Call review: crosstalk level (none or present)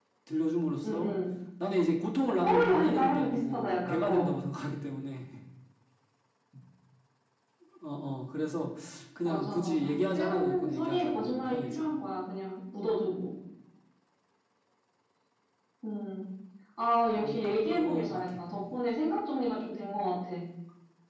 present